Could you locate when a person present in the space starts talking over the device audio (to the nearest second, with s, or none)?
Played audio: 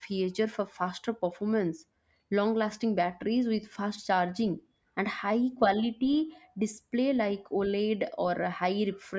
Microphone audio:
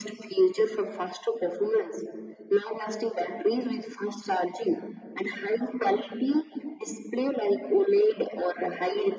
none